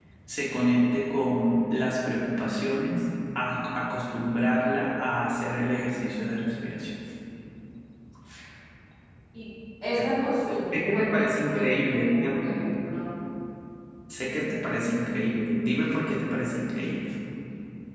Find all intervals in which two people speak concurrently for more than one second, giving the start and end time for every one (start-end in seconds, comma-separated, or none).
10.7-12.6